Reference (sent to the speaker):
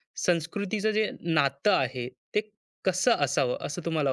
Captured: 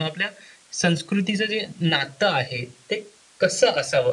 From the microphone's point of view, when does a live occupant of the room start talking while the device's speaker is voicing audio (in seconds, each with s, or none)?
none